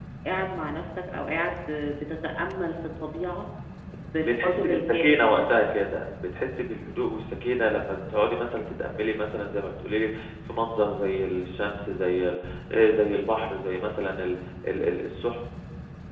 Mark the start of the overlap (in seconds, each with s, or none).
4.2 s